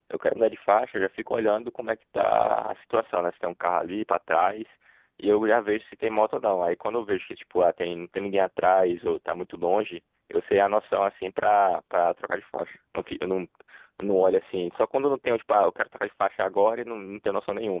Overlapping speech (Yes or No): No